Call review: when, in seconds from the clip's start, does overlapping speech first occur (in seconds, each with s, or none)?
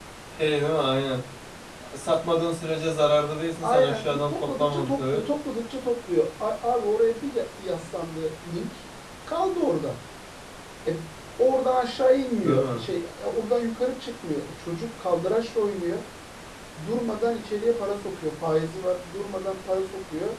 3.6 s